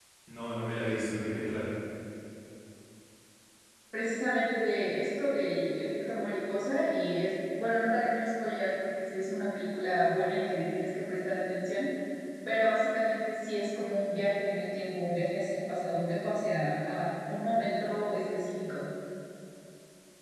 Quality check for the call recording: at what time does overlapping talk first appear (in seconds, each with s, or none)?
none